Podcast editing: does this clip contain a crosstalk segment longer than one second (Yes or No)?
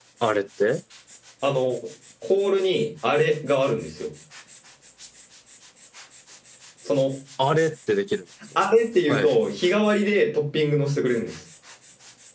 No